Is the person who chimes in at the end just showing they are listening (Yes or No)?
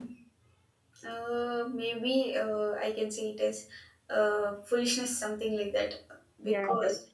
No